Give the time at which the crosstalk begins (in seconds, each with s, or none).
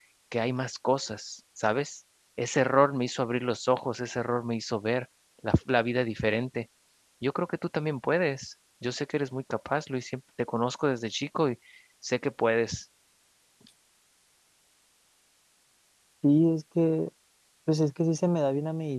none